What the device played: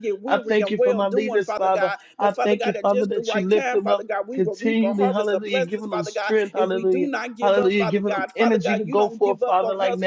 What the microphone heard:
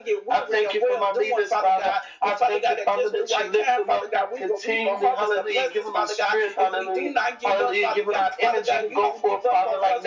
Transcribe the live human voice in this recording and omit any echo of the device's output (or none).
none